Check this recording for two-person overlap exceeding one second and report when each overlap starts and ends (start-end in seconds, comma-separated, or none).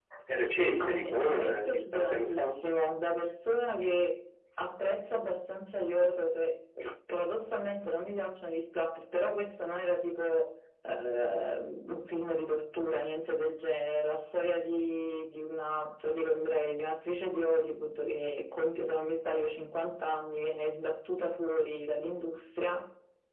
0.8-2.5